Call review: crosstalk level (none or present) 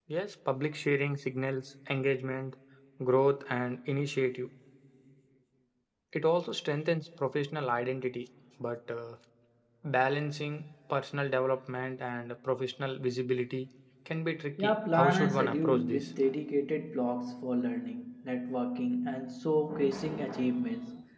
present